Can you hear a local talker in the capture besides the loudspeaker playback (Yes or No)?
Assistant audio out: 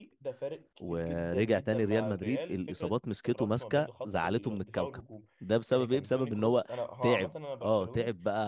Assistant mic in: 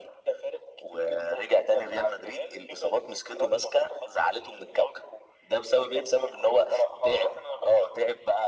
No